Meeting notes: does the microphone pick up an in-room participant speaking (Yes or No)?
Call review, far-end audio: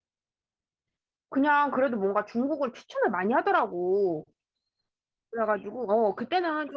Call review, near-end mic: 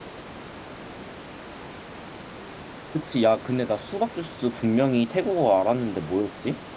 Yes